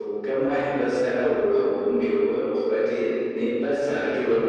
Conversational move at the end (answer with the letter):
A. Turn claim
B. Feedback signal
B